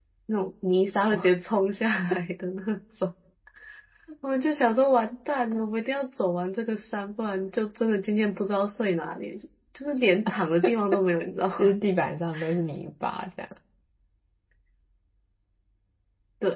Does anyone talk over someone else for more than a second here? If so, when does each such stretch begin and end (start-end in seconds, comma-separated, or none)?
none